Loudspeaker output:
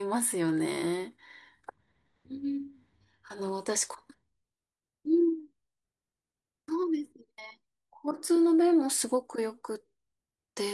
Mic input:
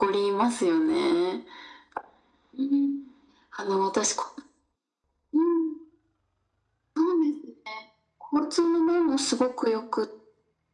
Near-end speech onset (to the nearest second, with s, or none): none